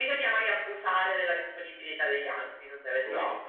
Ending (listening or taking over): taking over